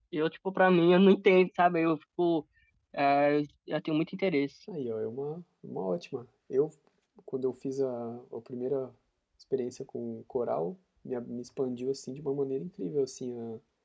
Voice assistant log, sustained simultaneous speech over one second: none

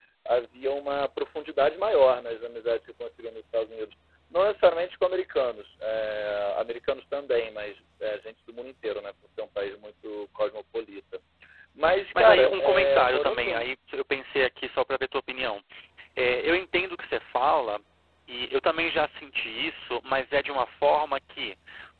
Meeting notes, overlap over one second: present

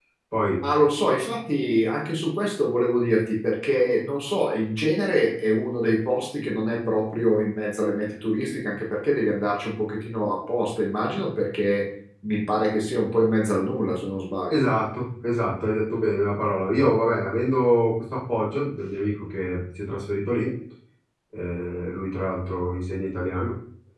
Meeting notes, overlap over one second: none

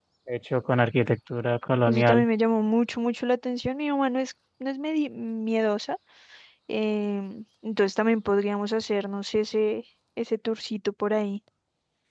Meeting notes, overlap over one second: none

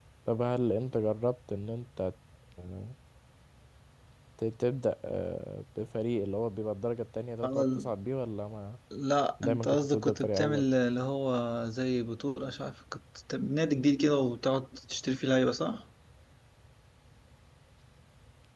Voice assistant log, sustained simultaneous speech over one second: present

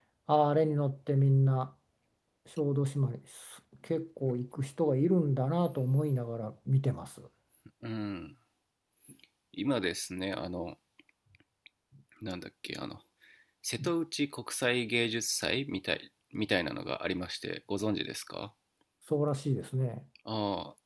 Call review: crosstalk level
none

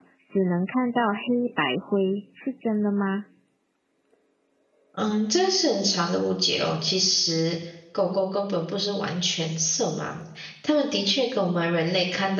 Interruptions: none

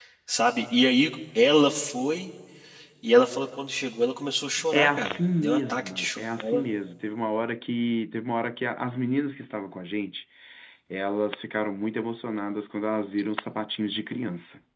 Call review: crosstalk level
present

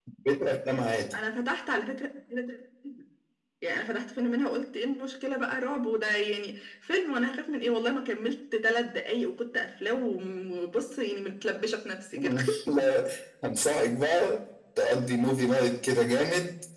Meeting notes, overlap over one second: none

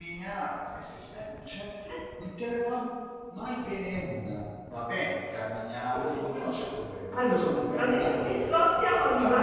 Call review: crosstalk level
present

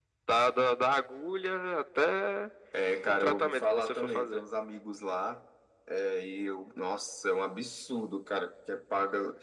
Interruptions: present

